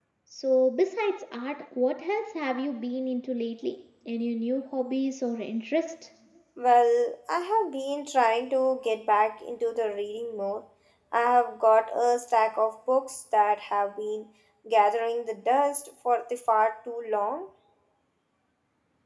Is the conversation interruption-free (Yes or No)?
Yes